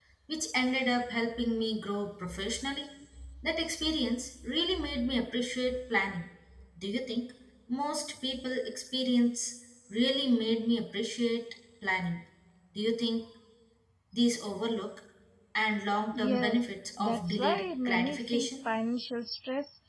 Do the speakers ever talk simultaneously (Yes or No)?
Yes